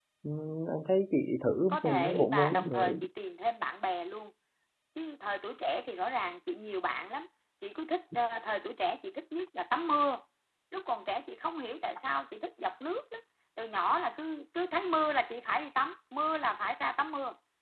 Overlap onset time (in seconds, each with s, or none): 1.7 s